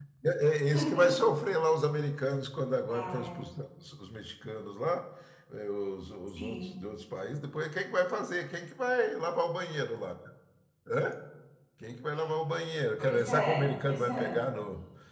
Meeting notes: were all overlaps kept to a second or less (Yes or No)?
No